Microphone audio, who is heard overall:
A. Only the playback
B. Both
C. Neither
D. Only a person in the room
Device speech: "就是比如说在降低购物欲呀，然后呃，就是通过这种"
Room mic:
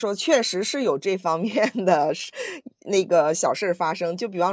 D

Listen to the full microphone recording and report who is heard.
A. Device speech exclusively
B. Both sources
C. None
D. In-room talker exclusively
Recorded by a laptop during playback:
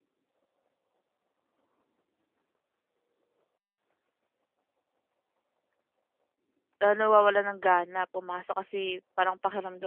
D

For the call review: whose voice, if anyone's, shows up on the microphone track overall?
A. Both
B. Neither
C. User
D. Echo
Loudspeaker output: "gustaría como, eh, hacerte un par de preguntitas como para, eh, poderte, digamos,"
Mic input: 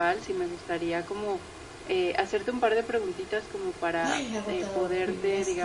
A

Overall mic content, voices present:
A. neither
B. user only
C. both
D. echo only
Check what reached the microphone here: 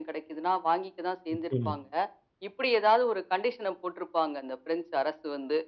C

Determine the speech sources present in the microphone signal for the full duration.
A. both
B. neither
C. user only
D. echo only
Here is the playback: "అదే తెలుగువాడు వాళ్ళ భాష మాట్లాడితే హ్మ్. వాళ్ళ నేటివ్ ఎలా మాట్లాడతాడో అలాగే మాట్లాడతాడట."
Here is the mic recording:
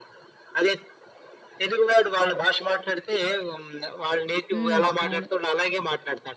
A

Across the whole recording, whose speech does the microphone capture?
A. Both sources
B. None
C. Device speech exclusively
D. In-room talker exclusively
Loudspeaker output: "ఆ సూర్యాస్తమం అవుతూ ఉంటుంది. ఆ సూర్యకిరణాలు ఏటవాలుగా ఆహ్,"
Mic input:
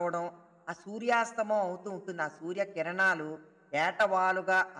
C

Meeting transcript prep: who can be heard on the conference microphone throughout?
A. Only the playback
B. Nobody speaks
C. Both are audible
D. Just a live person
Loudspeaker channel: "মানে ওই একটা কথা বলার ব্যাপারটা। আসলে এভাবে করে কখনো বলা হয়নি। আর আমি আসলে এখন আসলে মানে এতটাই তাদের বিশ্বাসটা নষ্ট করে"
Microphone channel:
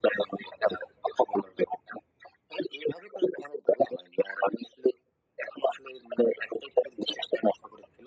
A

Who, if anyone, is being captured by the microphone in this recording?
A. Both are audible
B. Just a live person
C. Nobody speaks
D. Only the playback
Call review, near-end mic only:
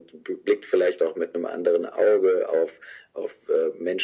D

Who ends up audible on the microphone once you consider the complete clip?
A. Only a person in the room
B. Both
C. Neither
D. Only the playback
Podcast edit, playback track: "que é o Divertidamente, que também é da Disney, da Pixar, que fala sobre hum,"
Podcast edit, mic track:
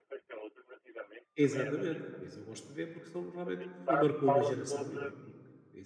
B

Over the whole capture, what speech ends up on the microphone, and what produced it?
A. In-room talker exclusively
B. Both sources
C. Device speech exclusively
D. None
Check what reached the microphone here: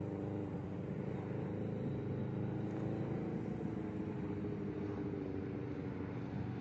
D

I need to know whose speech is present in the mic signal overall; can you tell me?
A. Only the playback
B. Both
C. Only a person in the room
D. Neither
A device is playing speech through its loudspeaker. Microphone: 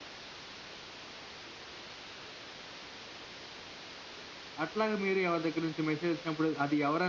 C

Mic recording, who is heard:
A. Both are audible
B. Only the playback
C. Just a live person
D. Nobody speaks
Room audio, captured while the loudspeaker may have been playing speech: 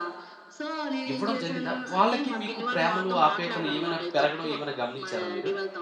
A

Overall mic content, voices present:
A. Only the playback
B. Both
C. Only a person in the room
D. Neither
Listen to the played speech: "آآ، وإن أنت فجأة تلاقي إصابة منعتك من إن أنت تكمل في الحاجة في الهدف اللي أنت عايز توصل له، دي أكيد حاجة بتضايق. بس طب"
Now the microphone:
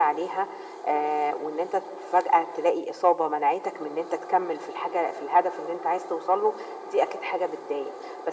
A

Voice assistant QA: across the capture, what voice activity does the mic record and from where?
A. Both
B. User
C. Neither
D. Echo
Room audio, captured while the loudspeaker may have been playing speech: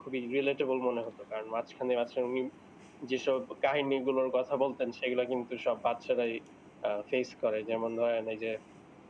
D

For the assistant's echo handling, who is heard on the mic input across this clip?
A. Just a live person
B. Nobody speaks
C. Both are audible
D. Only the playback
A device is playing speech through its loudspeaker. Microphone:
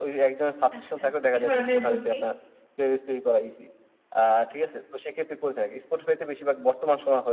C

